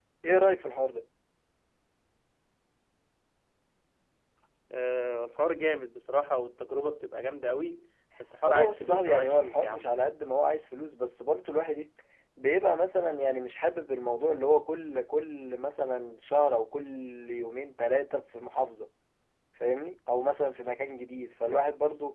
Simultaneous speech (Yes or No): Yes